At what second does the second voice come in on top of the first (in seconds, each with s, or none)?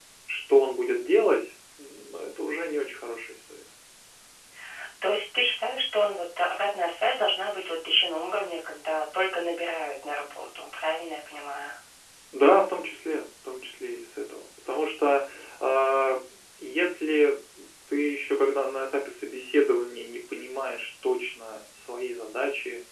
none